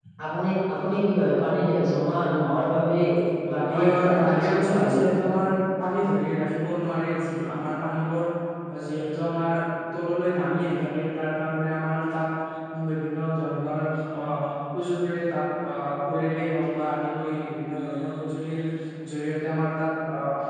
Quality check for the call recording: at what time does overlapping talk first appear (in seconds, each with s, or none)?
3.7 s